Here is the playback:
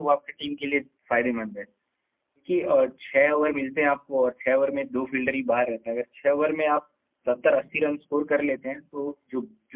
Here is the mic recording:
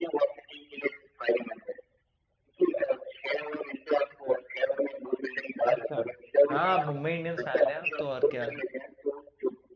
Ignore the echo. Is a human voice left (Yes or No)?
Yes